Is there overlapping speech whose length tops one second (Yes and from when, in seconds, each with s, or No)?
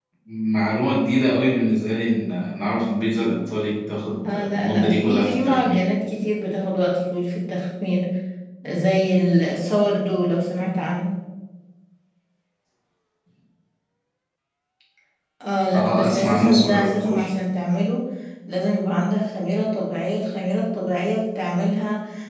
Yes, from 4.2 s